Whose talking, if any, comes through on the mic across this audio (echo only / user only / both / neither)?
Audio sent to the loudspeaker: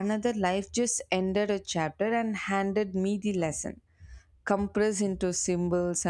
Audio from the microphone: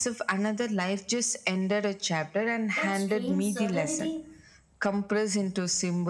both